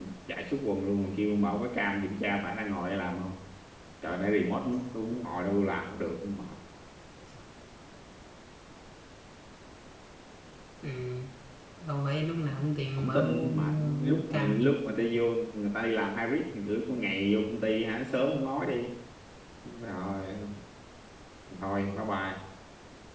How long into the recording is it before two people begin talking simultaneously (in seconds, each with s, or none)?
13.0 s